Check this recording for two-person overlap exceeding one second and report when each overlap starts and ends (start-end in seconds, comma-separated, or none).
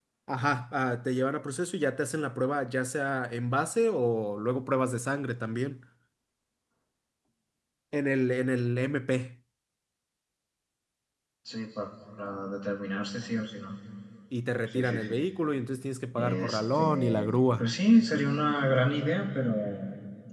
16.2-17.7